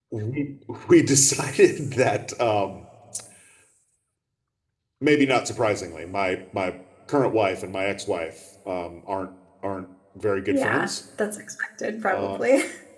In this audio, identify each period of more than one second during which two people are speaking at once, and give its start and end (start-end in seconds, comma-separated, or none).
none